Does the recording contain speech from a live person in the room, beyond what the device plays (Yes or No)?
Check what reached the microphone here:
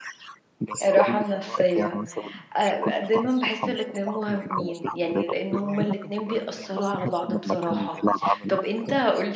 Yes